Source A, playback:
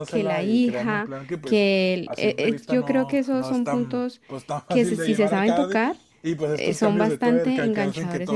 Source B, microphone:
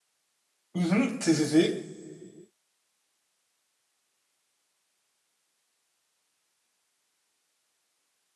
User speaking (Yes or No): Yes